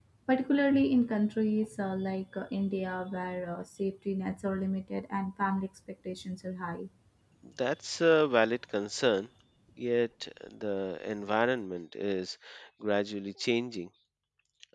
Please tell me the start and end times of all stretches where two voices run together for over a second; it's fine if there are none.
none

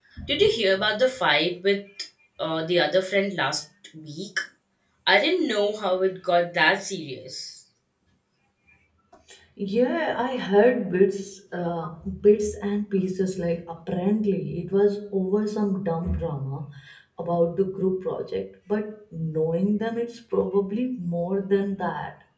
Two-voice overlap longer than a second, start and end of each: none

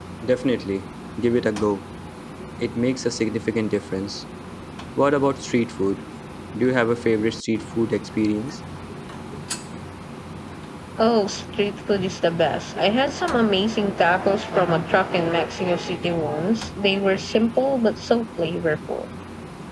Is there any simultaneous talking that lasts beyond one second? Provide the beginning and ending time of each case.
none

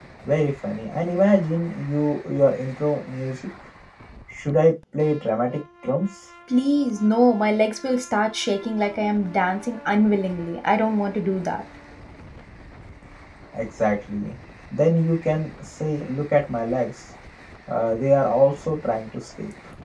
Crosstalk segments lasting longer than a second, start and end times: none

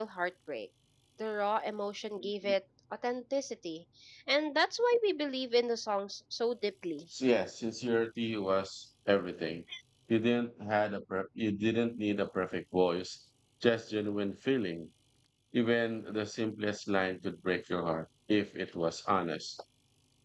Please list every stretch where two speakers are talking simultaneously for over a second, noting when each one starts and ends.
none

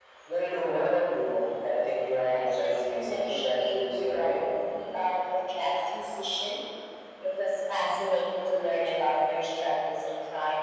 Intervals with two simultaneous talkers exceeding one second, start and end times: 2.3-4.5

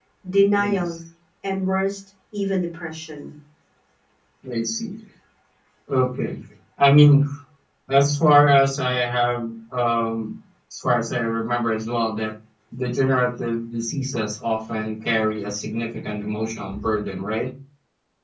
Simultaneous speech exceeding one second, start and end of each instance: none

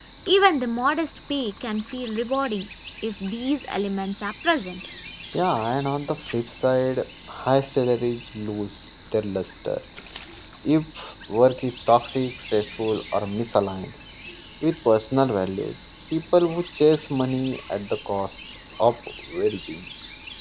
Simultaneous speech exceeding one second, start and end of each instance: none

